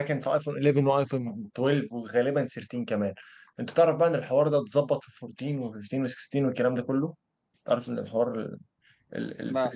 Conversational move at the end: listening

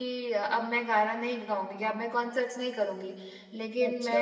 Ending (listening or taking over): listening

